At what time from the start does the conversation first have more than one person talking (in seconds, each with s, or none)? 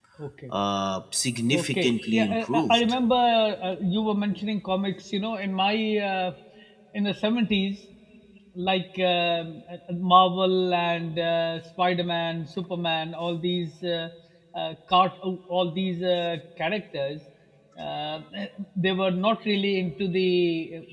1.5 s